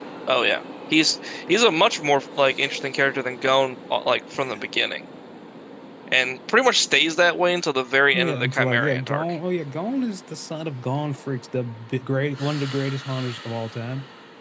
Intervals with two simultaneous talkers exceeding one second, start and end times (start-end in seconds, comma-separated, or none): 8.1-9.3